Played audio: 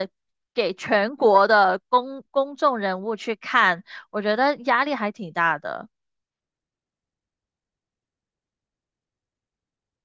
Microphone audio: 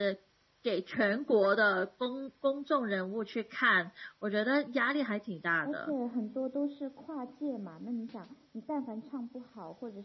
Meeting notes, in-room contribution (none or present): present